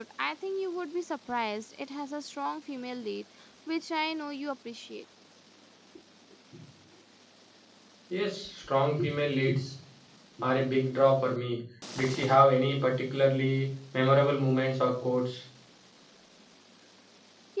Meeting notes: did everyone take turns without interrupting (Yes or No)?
Yes